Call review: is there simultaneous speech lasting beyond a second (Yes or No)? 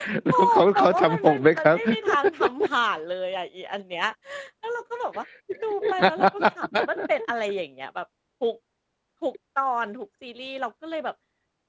Yes